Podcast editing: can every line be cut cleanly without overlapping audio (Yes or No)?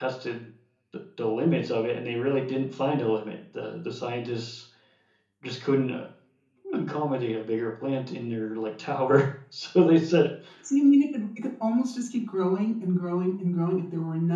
Yes